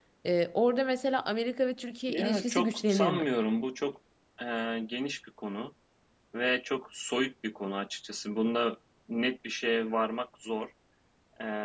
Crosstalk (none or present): present